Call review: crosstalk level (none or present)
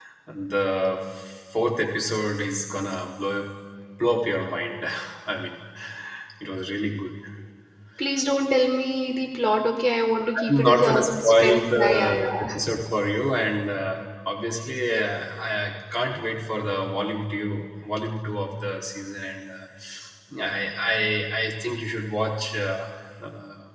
present